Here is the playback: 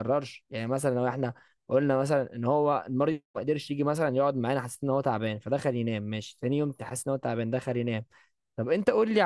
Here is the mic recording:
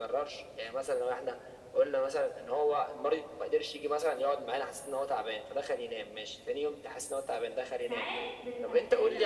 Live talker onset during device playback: 7.8 s

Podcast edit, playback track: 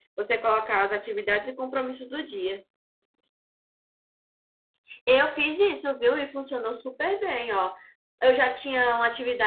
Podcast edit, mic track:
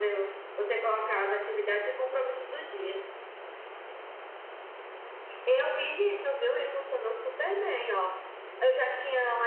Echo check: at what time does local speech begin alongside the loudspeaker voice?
none

